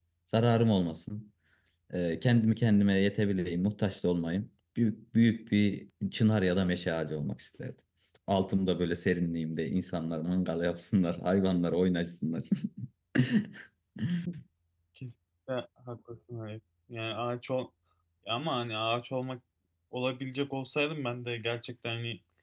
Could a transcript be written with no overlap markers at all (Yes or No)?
Yes